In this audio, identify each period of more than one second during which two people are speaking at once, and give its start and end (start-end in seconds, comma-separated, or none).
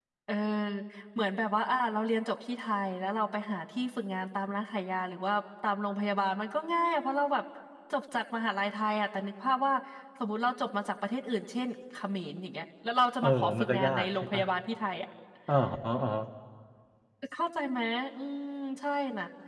13.2-14.4